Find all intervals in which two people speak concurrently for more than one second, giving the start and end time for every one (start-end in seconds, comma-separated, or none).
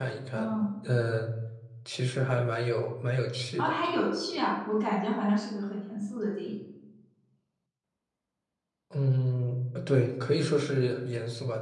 none